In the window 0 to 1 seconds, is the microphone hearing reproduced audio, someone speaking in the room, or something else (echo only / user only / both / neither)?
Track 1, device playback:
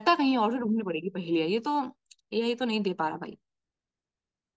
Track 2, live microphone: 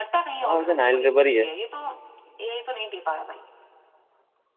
both